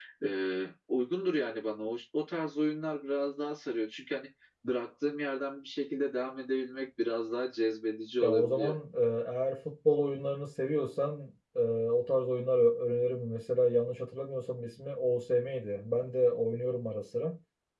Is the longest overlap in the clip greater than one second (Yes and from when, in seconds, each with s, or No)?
No